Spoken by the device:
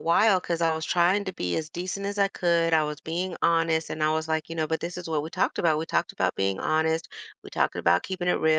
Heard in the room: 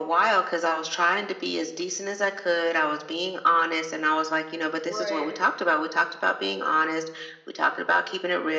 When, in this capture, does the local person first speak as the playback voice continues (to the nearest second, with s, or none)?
5 s